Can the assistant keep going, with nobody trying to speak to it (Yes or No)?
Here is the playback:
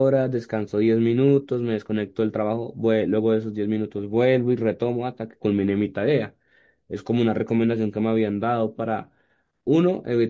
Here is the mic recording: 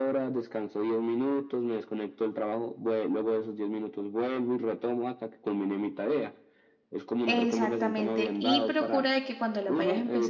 No